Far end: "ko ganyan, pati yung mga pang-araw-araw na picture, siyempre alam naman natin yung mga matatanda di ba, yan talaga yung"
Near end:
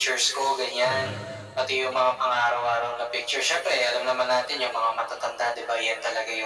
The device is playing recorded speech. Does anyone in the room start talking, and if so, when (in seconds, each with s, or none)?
0.8 s